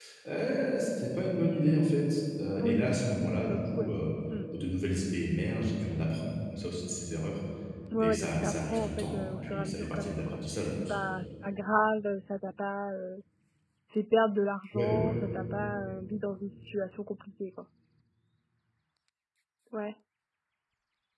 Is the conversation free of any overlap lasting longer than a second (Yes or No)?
No